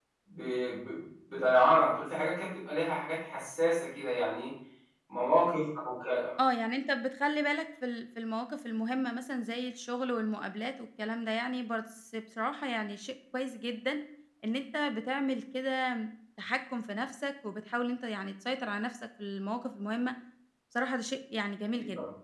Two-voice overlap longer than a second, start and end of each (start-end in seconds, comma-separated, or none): none